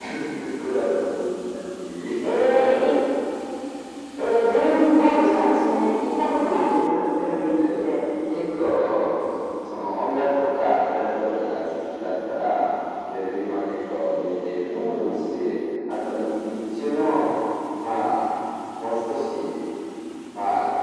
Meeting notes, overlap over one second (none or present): none